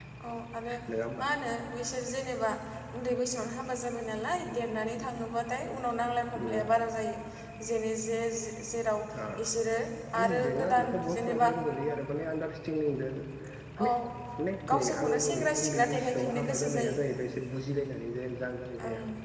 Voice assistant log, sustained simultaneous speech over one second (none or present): present